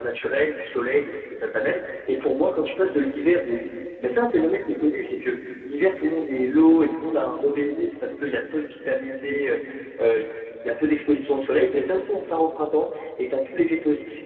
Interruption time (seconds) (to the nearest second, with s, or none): none